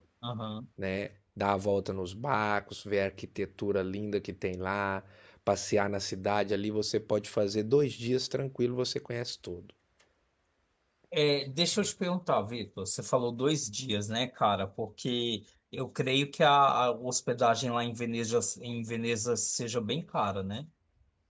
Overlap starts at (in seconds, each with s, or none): none